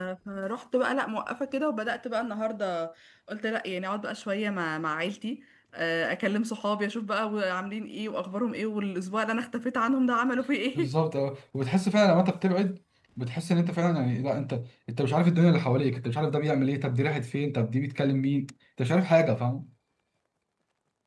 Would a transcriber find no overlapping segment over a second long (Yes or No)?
Yes